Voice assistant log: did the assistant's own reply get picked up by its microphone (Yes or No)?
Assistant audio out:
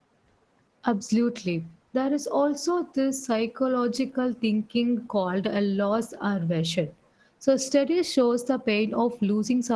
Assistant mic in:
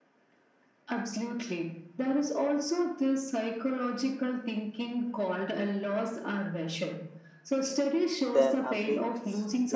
Yes